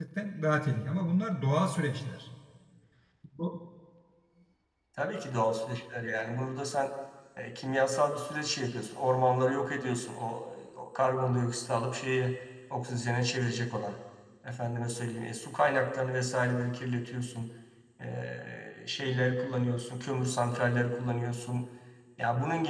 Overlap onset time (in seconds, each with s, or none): none